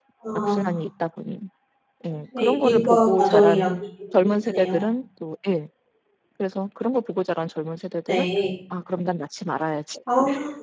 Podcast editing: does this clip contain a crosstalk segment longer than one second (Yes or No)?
Yes